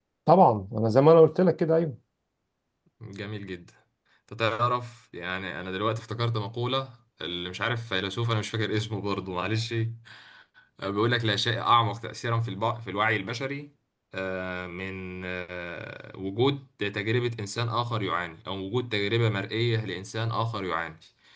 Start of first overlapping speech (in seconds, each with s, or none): none